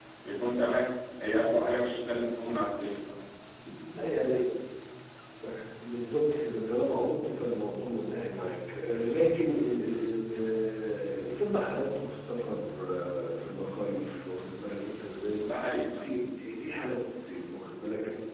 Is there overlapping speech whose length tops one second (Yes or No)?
No